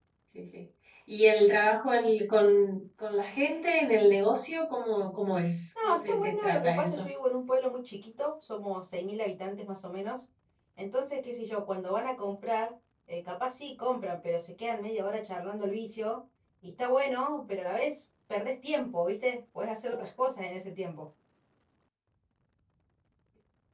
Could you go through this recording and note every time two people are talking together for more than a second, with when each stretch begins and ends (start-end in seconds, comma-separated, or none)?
5.8-7.1